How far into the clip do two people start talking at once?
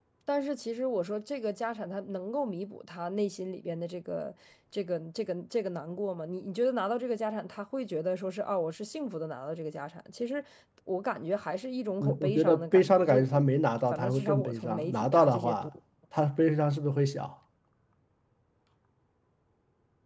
12 s

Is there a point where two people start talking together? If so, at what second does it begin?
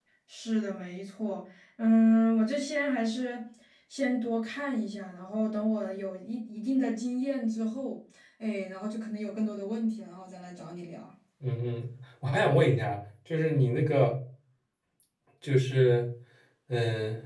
none

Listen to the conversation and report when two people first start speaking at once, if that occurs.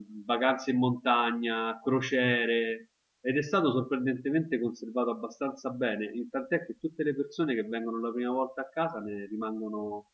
none

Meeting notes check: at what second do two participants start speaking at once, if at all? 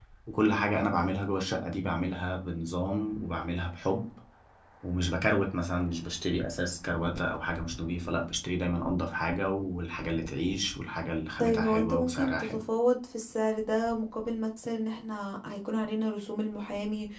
11 s

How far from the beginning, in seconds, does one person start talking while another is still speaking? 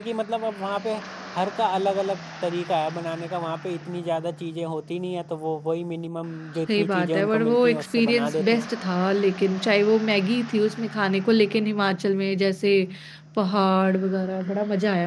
7 s

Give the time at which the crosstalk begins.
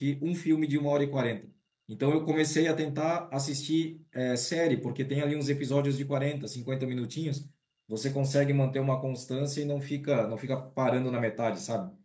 none

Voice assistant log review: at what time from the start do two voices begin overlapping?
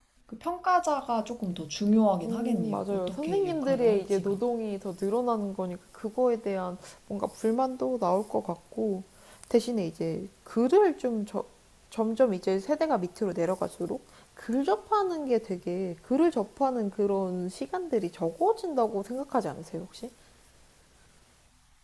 2 s

